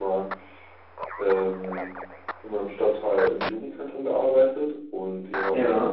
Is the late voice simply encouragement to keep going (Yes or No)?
Yes